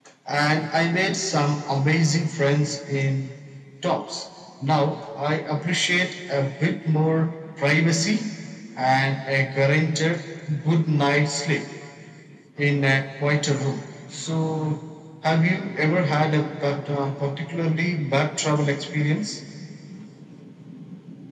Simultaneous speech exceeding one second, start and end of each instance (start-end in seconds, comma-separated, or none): none